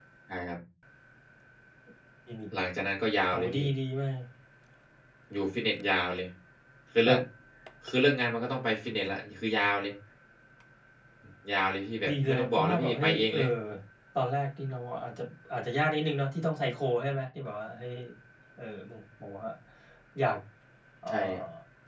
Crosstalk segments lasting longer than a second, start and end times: 12.1-13.4

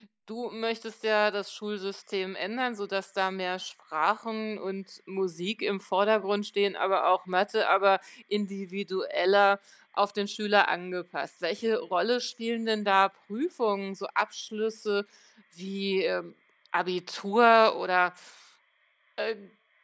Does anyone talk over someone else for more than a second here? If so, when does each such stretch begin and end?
none

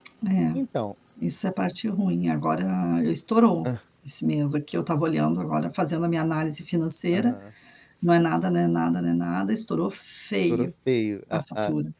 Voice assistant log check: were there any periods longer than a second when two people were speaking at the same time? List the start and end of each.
none

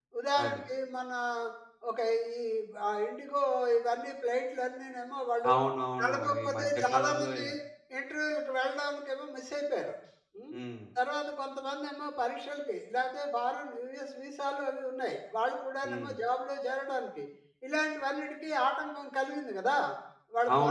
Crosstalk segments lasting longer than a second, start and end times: 6.0-7.5

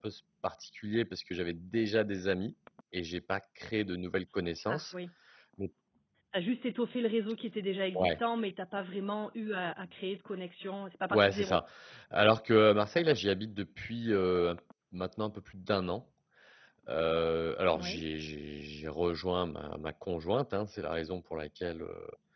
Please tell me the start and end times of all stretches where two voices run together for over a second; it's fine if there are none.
none

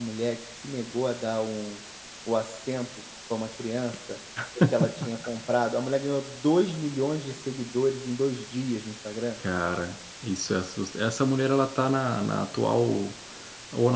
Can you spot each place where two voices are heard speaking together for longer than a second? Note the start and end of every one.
none

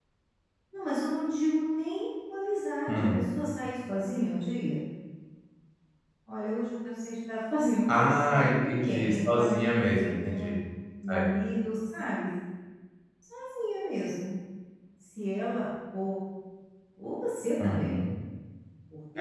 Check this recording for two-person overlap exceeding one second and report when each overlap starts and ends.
7.9-10.6

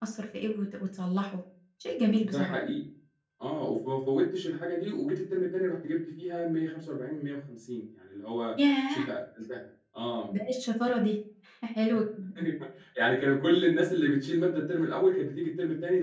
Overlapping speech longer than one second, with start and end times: none

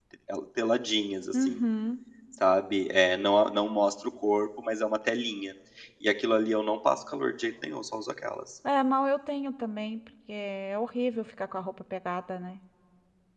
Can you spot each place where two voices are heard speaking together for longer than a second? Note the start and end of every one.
none

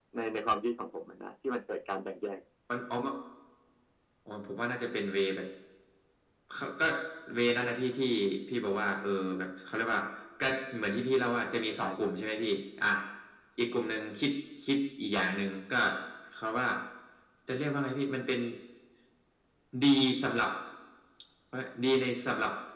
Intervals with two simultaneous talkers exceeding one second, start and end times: none

